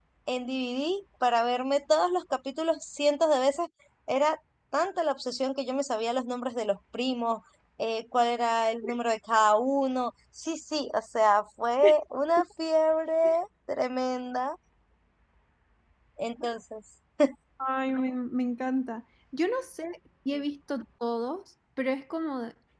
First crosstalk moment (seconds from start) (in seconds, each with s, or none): none